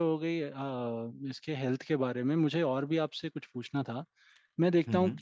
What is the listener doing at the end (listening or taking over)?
listening